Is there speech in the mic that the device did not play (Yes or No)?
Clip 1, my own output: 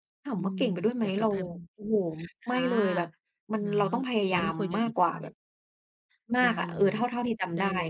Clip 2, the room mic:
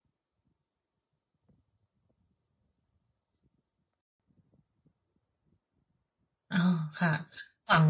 Yes